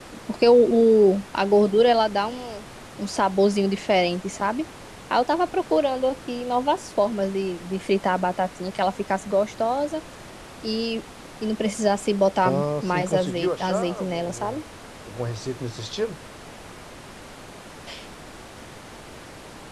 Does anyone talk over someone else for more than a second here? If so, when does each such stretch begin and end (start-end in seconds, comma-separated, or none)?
12.4-14.6